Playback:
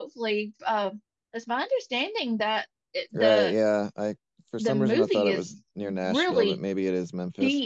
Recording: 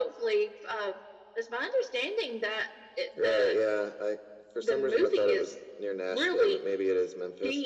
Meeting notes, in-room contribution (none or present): none